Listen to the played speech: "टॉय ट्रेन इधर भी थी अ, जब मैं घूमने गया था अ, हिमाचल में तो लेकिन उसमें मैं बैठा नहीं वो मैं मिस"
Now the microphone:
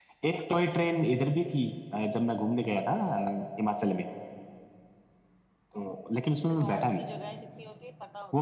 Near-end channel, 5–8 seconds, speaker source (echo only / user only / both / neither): both